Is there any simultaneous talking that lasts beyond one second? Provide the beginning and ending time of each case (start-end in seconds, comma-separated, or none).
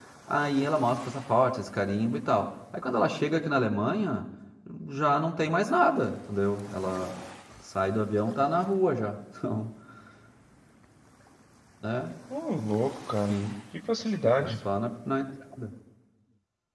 none